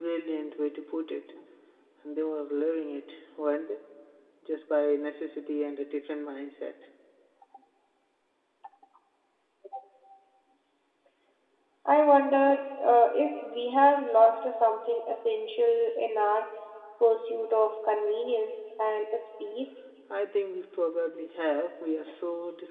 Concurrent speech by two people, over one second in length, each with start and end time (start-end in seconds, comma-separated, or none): none